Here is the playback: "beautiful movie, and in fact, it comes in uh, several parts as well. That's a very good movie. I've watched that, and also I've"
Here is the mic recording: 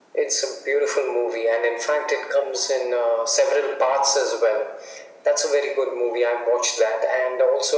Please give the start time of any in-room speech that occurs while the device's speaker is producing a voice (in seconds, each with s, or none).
none